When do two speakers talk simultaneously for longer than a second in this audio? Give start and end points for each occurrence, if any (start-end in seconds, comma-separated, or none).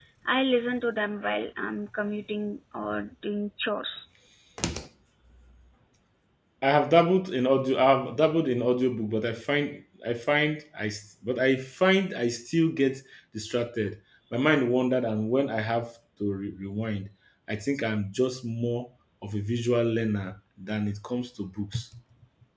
none